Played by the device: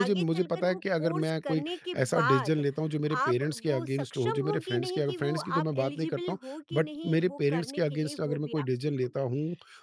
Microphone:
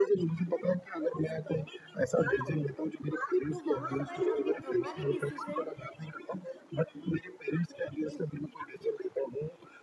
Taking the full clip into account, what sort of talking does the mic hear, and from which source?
both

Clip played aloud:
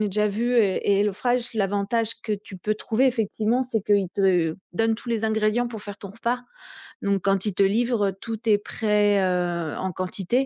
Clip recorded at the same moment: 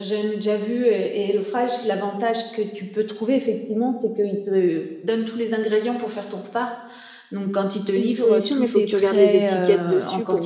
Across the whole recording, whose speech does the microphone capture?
both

